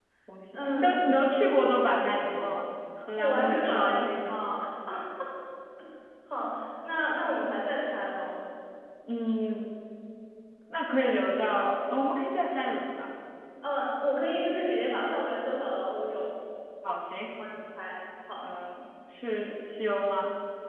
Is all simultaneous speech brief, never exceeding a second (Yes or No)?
No